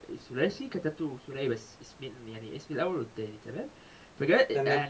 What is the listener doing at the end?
listening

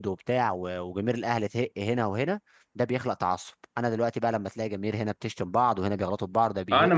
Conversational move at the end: taking over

